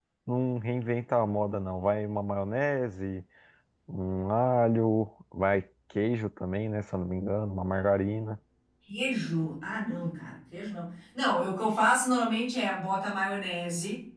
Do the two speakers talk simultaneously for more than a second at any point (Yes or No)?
No